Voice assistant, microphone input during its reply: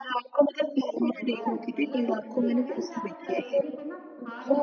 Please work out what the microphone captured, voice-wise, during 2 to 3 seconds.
both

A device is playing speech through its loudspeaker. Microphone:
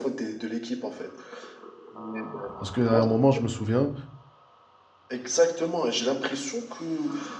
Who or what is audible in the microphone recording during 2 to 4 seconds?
both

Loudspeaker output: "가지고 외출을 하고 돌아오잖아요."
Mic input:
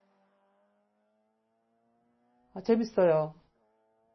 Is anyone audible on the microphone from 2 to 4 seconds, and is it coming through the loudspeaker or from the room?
user only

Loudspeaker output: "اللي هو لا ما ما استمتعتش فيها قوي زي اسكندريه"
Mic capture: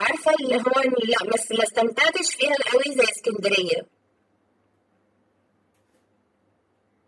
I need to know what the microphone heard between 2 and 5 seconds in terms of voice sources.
echo only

